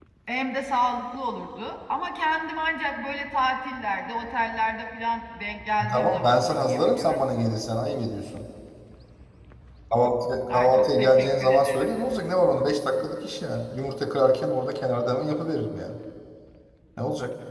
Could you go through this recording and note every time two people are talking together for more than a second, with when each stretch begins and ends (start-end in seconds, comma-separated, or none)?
5.9-7.2, 10.5-11.9